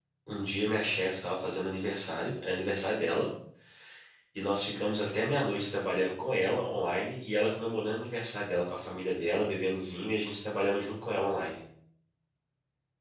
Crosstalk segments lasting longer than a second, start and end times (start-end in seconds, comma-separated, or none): none